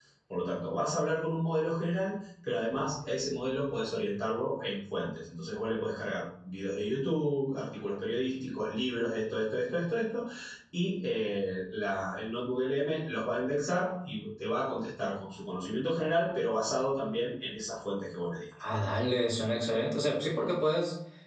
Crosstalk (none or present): none